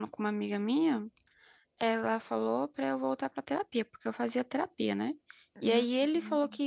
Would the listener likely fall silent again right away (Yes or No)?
Yes